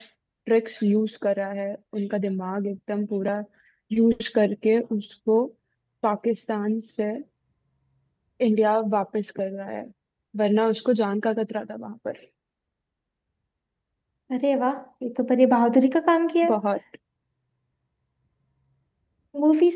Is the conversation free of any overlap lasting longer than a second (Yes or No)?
Yes